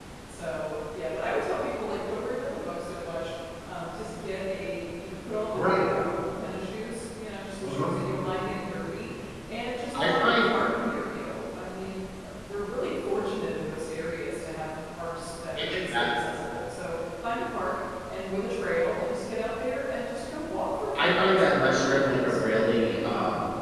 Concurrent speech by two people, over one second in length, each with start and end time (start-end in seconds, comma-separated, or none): 20.9-22.4